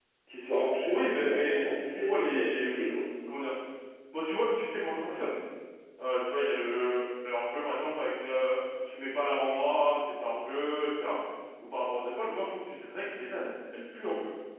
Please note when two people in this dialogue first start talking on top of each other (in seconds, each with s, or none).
0.9 s